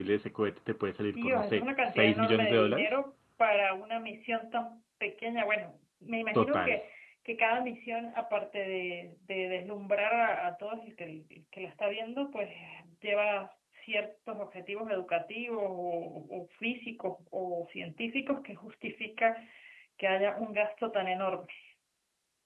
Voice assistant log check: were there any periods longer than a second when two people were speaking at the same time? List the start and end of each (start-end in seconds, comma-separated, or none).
1.2-2.9